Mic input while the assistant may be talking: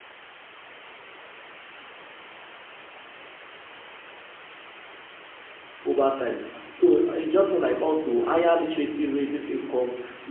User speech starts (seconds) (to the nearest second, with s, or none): 6 s